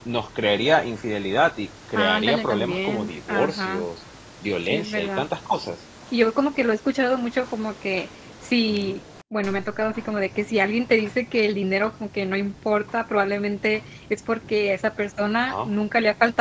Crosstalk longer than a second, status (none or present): present